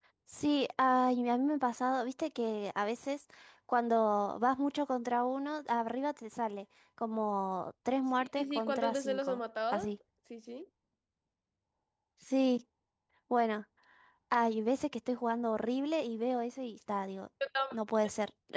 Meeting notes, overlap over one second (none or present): present